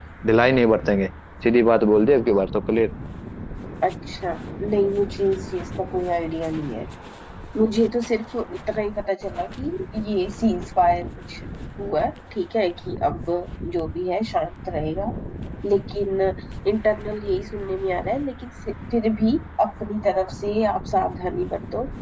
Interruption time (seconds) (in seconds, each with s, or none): none